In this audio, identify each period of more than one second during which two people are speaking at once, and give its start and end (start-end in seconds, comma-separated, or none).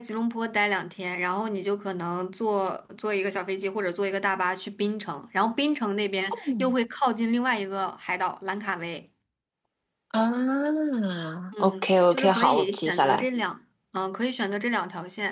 11.6-13.2